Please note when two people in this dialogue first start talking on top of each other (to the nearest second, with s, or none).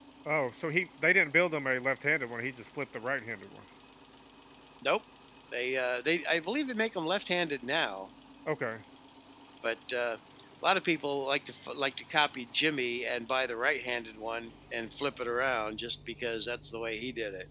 none